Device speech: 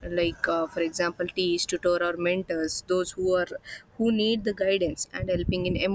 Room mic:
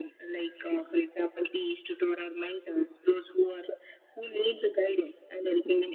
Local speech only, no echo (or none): none